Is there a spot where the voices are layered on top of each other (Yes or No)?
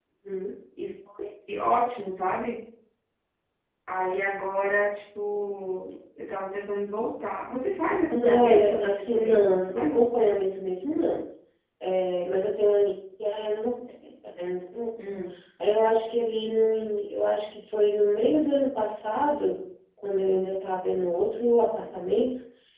Yes